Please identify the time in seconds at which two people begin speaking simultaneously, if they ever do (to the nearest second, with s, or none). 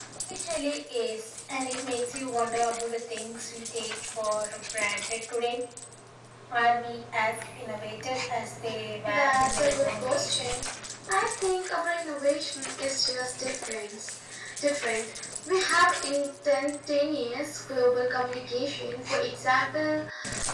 9 s